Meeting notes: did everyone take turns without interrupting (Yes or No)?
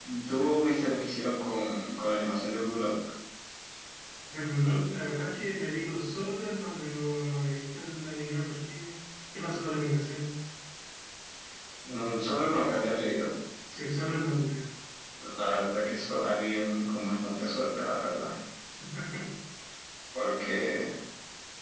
Yes